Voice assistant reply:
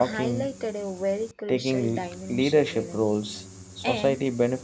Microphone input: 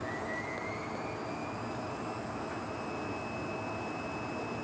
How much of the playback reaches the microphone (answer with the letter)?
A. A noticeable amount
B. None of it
B